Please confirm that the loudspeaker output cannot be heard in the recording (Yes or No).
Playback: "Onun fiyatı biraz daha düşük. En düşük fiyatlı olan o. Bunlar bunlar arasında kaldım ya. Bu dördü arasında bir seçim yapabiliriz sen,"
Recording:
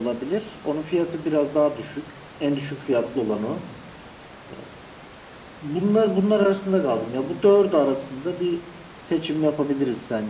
No